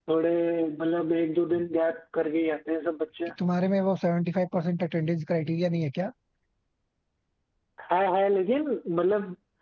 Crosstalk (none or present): none